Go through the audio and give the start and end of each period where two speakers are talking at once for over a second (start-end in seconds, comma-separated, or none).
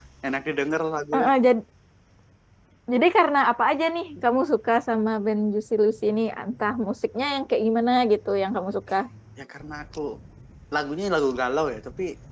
none